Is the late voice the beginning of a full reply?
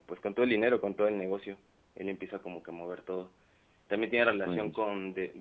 No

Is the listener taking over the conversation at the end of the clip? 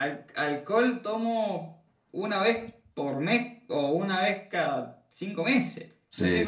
No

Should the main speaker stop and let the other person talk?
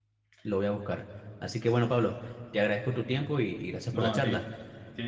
Yes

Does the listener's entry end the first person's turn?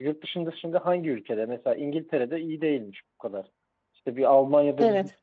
No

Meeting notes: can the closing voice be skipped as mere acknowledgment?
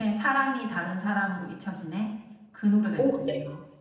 No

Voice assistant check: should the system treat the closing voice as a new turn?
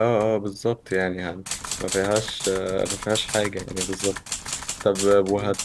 No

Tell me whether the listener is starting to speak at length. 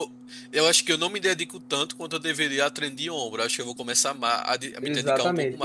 Yes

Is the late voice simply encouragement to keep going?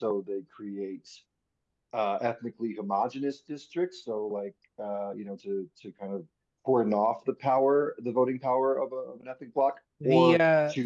No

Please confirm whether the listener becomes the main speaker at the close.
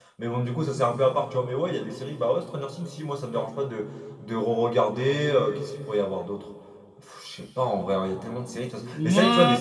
No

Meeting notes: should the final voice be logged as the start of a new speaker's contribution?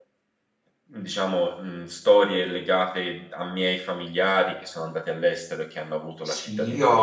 Yes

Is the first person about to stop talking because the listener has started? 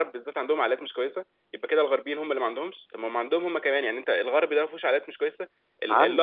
No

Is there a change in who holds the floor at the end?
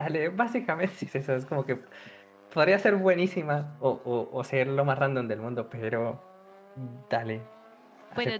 Yes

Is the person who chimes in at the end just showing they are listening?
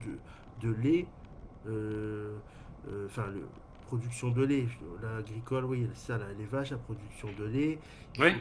Yes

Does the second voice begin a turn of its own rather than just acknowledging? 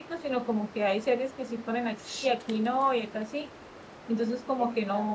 No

